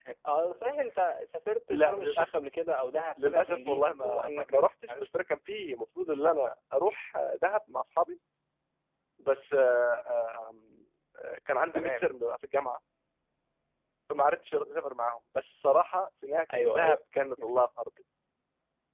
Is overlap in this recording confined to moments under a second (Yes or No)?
No